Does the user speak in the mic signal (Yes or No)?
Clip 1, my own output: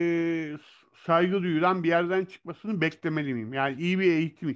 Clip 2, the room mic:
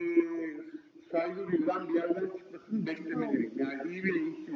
Yes